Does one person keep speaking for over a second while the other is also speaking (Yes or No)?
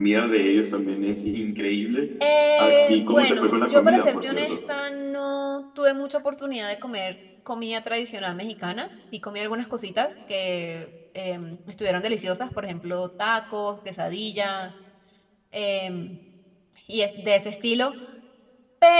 Yes